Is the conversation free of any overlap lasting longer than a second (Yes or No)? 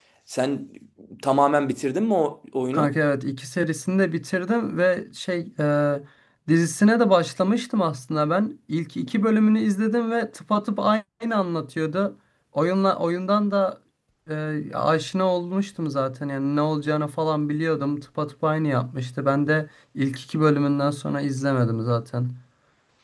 Yes